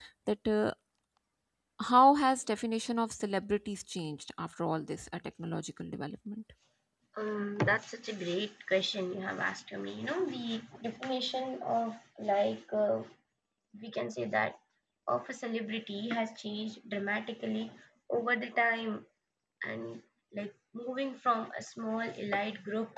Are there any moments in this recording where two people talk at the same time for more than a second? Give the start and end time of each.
none

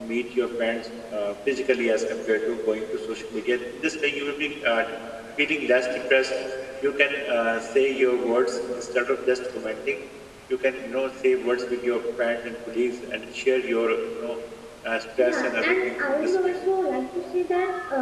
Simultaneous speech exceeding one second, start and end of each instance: 15.2-16.5

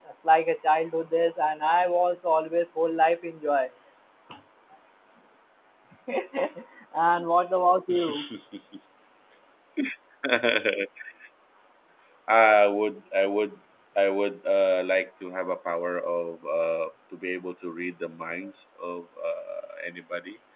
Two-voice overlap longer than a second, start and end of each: none

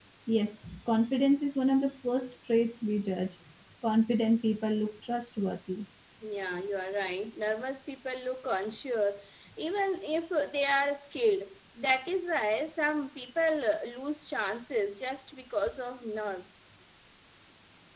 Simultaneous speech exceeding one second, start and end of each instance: none

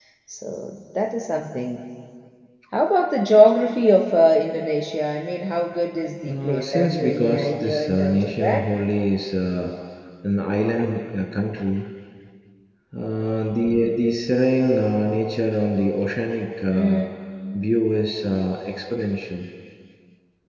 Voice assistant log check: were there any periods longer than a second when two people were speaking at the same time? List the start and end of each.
6.3-8.6

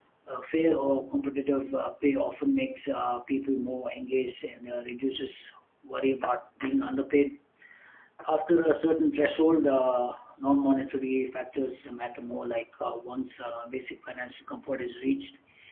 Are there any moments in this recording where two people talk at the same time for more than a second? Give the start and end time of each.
none

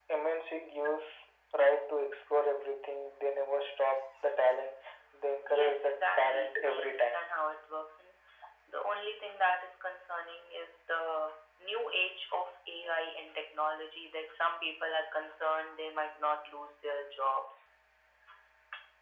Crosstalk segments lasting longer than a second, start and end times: 5.5-7.2

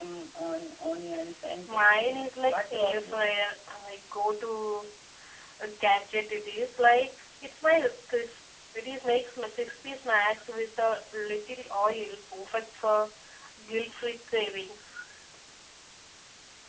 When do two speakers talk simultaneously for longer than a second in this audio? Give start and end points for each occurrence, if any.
1.7-3.3

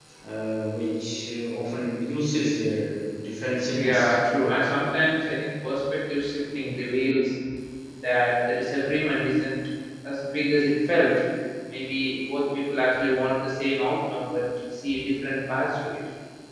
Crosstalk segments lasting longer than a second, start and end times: none

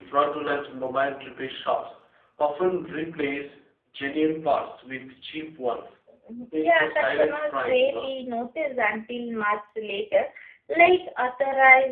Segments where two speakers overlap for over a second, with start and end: 6.5-8.1

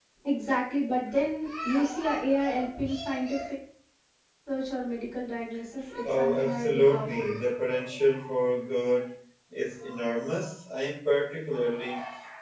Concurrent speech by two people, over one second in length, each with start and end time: 6.0-7.3

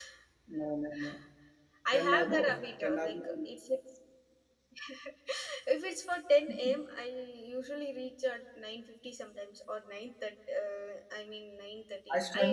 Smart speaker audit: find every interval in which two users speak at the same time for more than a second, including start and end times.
1.9-3.4

